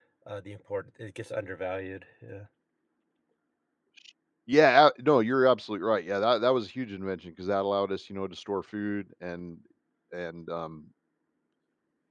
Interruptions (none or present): none